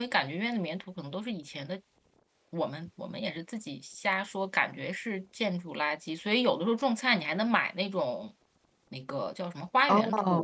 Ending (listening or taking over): listening